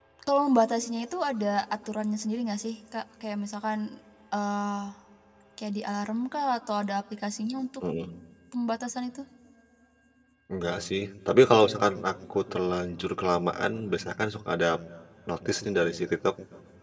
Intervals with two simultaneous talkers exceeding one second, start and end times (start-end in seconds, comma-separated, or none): none